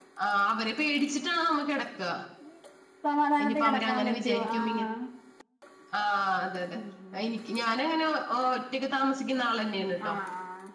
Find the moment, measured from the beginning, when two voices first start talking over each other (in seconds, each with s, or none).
3.4 s